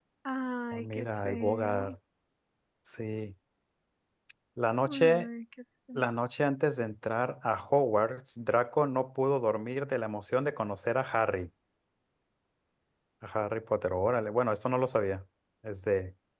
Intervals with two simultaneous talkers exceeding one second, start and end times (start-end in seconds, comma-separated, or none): 0.7-1.9